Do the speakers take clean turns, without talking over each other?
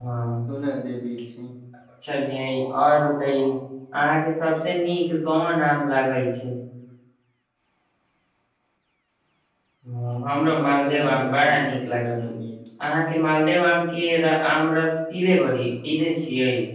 No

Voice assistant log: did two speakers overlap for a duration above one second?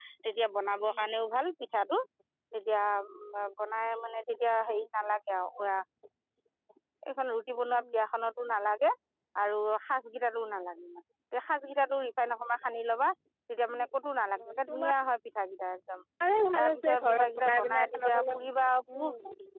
Yes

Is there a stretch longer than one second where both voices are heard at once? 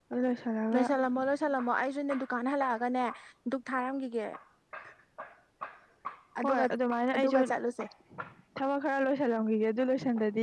No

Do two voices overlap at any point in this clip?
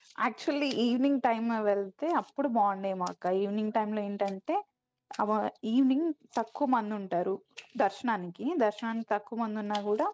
No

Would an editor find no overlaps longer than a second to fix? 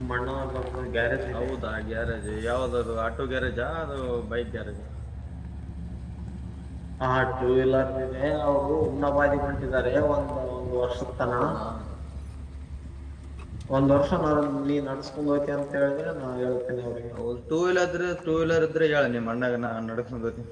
Yes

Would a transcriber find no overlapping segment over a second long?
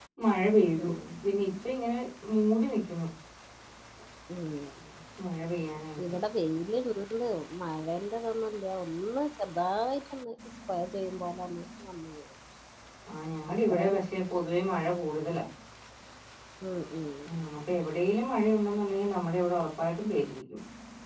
Yes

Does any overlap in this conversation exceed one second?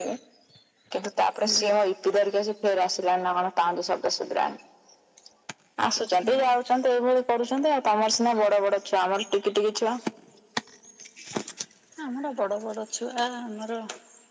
No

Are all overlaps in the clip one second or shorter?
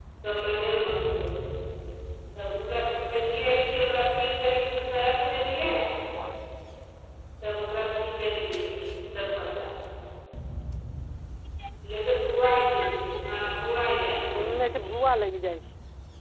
Yes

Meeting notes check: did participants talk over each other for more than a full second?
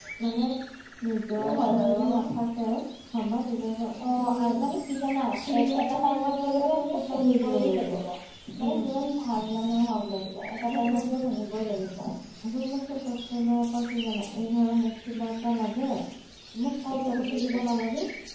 Yes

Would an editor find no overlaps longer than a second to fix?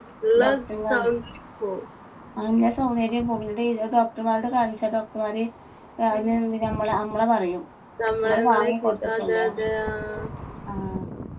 No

